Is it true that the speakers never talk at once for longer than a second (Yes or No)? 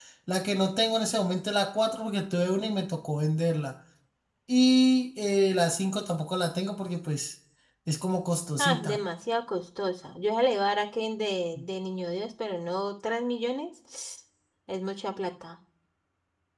Yes